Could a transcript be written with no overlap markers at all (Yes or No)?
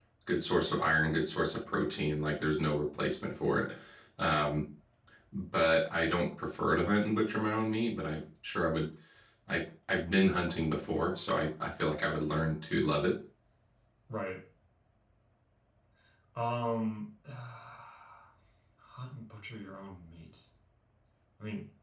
Yes